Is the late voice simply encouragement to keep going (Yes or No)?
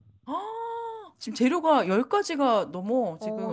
No